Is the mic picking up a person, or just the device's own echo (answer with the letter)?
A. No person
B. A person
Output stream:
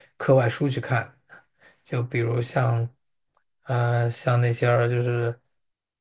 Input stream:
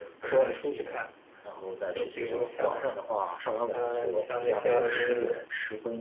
B